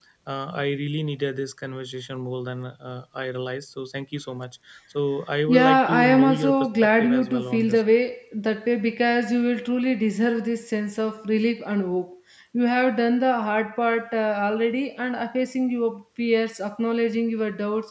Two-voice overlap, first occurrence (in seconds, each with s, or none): 5.5 s